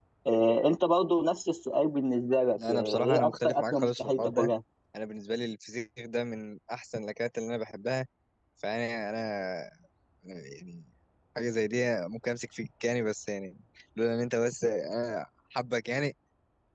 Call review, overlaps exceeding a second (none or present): present